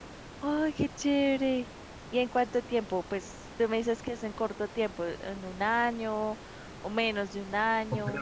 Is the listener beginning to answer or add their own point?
Yes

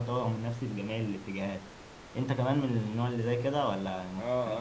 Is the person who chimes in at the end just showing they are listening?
No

